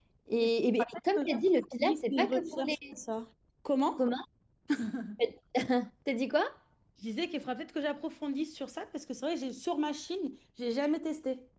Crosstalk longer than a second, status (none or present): present